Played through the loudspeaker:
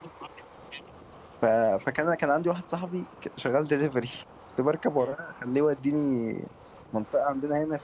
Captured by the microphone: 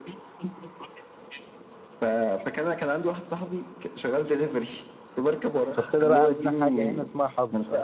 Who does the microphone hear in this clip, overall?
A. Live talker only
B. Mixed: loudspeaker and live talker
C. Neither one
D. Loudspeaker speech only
B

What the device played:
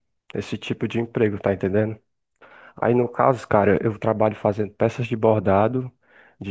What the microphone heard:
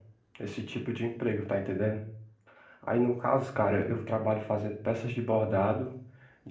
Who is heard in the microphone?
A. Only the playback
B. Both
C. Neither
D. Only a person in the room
A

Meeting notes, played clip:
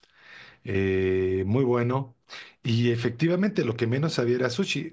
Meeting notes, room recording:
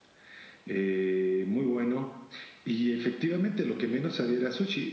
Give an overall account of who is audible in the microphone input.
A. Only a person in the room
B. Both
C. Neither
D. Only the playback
D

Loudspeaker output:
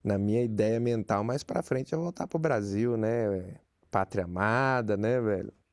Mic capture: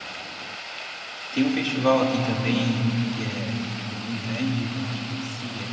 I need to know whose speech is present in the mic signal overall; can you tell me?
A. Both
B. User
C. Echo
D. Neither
B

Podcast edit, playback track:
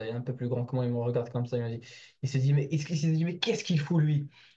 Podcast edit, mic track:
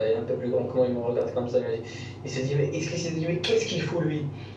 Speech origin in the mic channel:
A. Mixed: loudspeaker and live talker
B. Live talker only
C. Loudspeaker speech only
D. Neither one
C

